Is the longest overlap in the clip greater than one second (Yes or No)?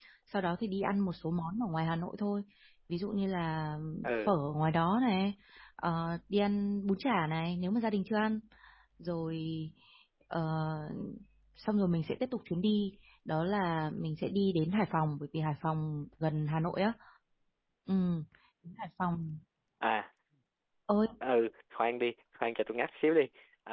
No